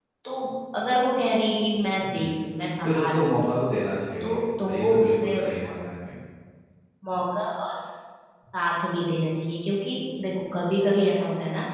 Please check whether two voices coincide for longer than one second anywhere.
Yes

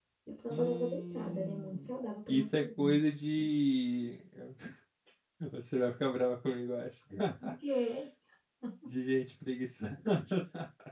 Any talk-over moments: Yes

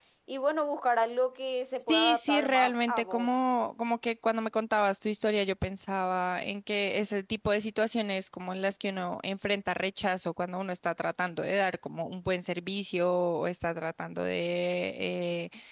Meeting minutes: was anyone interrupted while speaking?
Yes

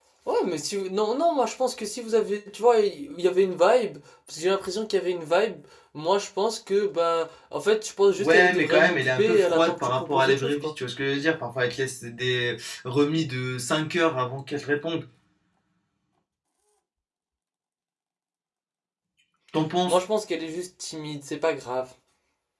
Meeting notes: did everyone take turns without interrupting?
No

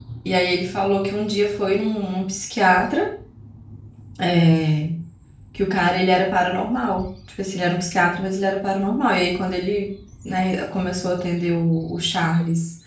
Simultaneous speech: No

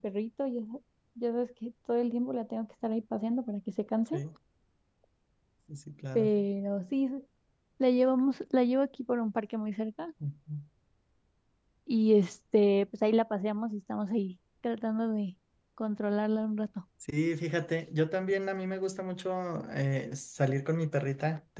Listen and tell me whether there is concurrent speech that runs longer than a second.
No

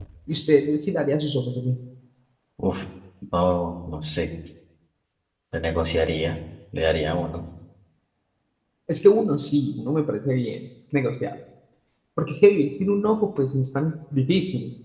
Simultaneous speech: No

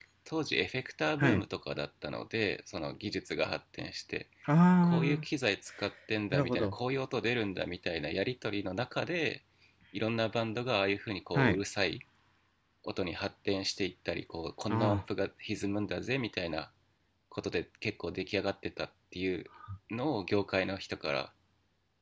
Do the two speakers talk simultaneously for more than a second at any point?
No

